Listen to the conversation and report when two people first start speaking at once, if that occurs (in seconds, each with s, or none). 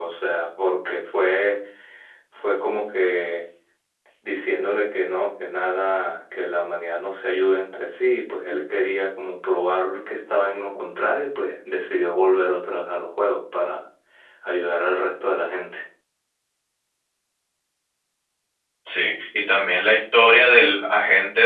none